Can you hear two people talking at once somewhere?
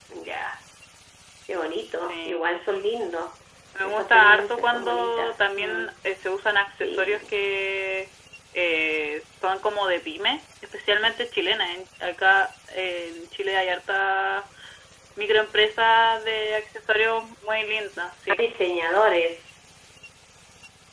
Yes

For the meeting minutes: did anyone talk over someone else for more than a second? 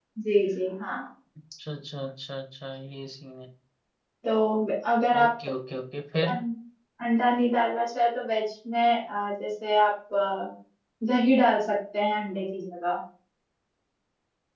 No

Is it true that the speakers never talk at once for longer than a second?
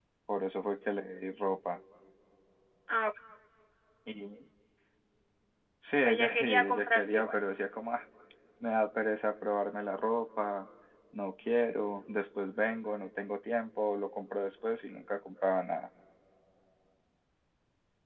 No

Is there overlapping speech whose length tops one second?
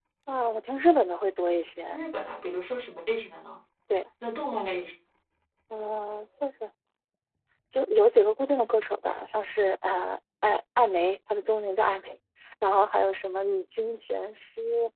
No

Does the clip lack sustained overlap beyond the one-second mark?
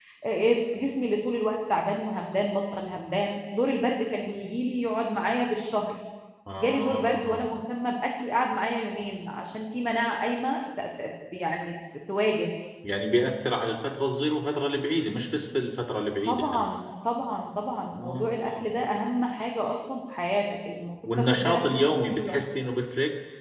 No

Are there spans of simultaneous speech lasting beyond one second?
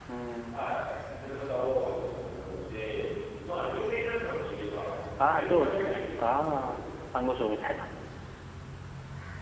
Yes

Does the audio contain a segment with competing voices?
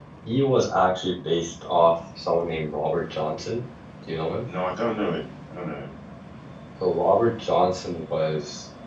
No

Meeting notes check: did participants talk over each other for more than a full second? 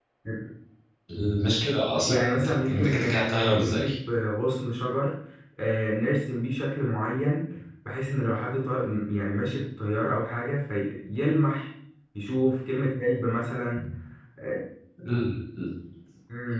Yes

